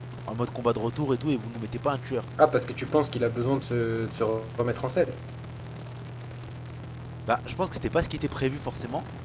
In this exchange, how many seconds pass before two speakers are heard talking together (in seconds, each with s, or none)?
none